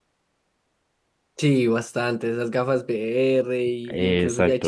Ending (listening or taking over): listening